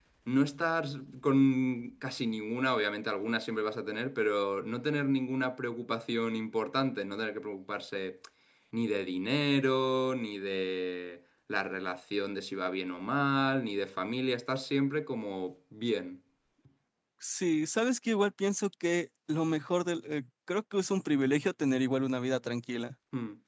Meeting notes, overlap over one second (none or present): none